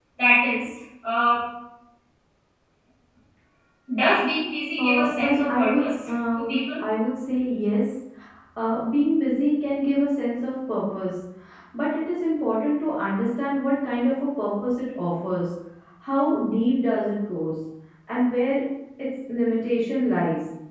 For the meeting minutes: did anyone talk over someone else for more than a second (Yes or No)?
Yes